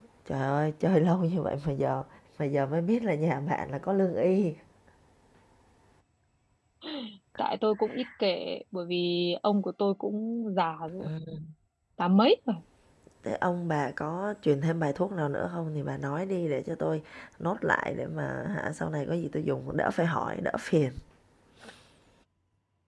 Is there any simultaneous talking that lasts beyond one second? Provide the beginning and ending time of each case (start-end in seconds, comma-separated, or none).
none